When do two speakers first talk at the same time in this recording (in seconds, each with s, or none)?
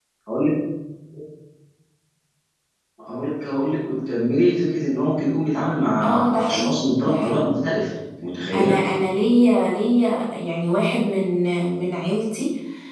6.0 s